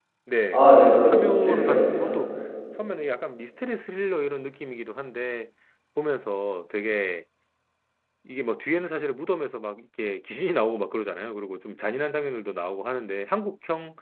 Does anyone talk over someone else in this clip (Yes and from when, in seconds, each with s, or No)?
Yes, from 0.5 s